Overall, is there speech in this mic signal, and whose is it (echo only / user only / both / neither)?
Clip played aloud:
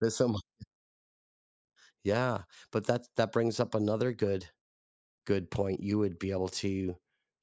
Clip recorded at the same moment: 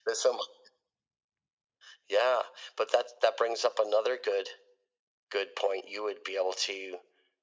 echo only